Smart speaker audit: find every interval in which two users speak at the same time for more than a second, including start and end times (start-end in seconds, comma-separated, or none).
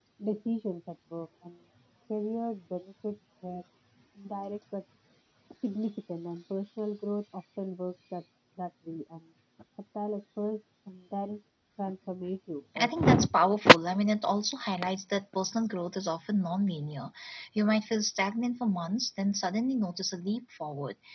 none